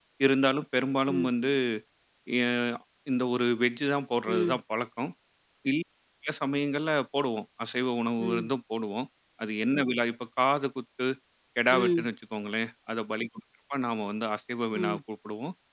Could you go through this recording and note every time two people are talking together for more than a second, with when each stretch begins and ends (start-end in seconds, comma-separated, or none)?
none